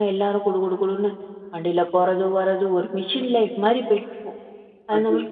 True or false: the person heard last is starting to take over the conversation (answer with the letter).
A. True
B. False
B